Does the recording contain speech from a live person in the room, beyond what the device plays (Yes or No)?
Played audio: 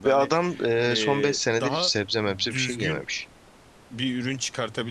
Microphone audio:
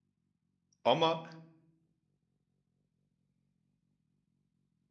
Yes